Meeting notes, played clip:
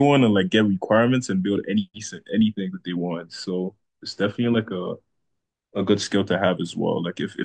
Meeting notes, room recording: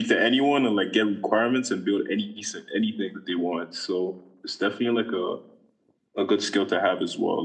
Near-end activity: none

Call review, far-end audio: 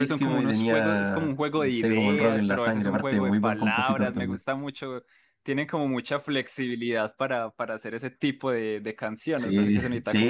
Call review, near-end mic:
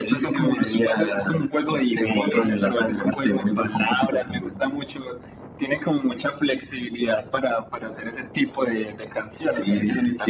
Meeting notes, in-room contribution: none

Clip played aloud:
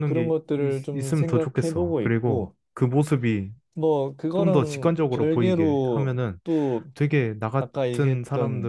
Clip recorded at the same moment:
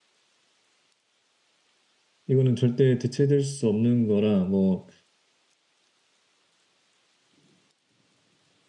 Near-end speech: present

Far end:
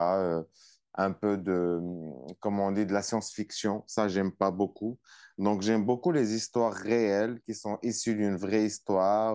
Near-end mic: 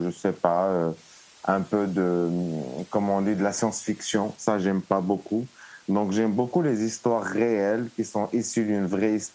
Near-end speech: none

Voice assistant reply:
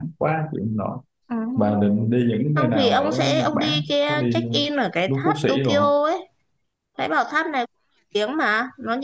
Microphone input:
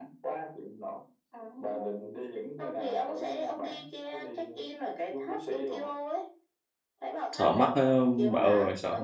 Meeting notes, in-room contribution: present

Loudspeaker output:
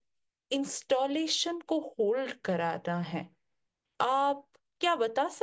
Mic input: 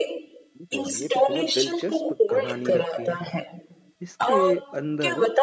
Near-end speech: present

